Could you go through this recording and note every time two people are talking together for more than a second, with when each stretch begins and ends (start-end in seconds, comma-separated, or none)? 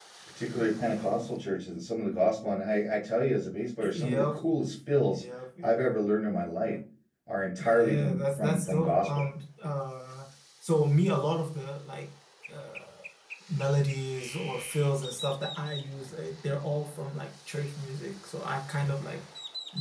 7.6-9.1